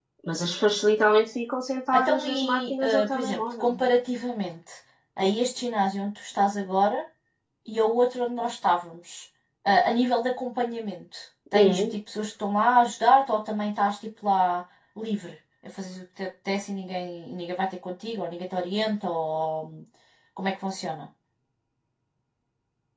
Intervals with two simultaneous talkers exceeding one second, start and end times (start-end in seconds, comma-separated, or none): 1.9-3.8